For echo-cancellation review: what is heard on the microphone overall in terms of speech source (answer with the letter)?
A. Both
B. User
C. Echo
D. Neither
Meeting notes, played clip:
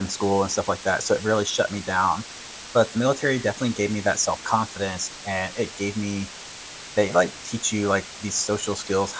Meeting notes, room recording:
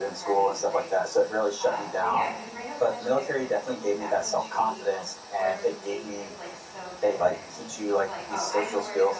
A